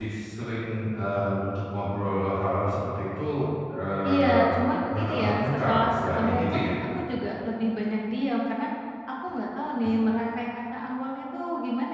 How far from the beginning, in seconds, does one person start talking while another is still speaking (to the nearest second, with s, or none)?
4 s